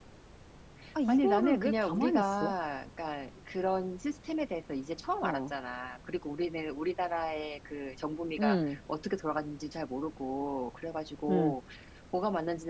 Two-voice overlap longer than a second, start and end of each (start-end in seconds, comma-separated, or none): 1.1-2.5